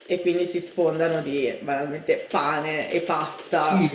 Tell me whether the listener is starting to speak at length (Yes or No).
Yes